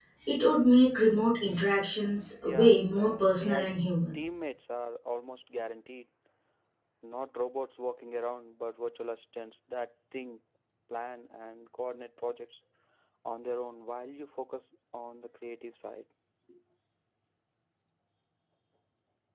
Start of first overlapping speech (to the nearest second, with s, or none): 2 s